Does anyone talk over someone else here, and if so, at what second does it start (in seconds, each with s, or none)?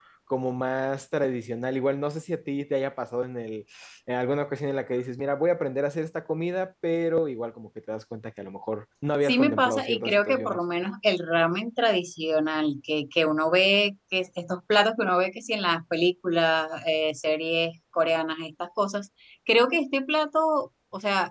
9.2 s